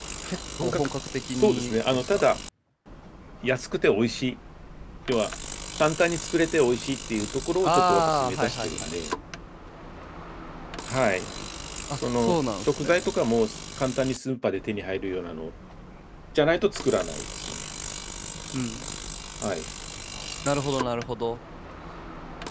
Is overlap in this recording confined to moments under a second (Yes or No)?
No